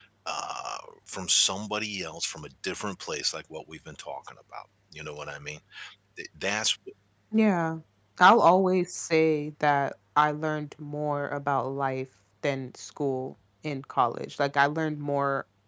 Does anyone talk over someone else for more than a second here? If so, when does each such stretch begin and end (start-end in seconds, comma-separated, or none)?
none